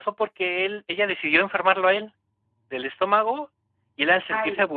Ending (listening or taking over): listening